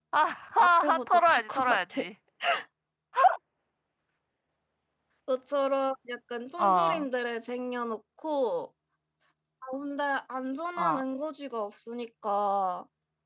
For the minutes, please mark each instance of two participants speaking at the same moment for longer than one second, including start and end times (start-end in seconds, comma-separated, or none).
0.6-2.0